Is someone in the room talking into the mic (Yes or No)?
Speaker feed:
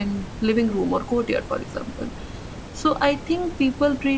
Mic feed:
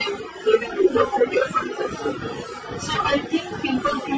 No